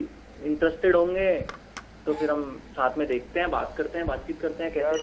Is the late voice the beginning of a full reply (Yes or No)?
Yes